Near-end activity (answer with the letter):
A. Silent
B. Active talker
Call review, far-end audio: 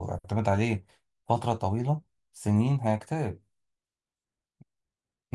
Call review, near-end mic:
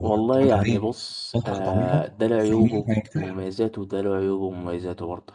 B